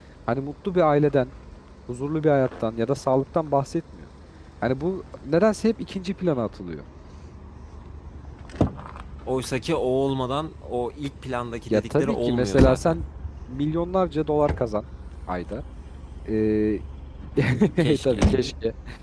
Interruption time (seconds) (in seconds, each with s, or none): 11.7 s